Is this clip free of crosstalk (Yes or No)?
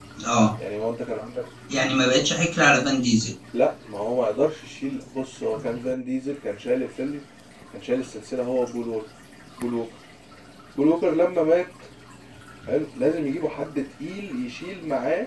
Yes